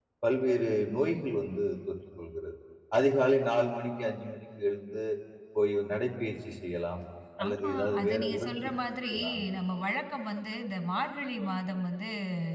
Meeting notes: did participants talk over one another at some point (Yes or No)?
Yes